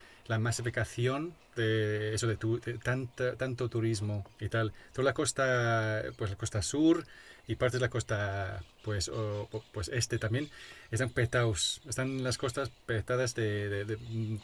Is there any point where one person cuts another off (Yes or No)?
No